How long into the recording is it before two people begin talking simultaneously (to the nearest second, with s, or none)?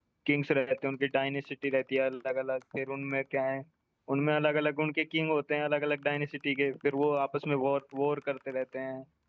none